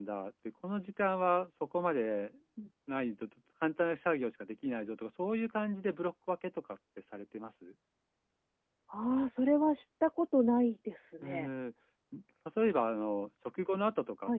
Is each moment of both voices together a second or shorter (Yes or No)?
Yes